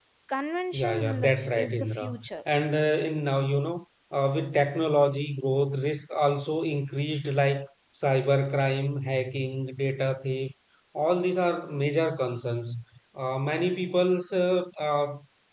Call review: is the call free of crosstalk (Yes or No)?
No